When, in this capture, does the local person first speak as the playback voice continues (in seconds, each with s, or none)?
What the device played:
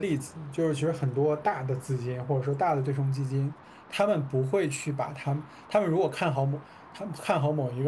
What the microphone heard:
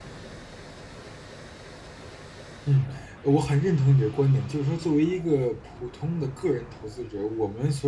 2.6 s